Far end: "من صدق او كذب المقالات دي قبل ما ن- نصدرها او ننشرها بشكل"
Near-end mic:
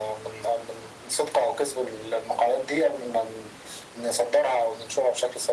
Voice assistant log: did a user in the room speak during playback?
No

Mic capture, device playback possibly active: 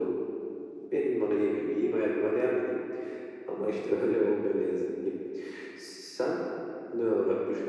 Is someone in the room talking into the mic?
No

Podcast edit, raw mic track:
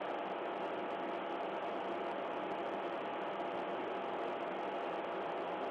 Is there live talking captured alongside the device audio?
No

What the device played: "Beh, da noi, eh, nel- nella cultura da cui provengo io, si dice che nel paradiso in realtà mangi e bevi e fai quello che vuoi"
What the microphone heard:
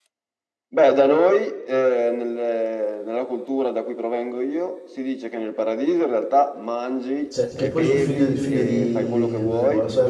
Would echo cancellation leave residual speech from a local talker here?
Yes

